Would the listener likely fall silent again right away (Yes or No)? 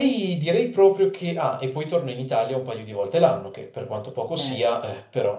Yes